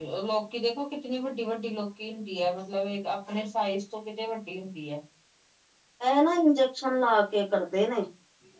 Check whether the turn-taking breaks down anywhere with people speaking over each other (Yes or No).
No